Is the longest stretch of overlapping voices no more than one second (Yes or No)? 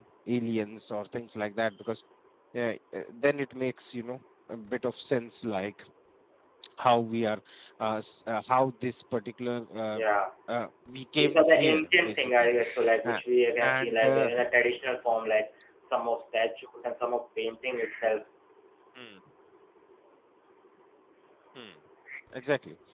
No